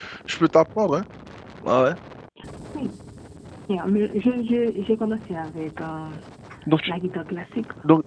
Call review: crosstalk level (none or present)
none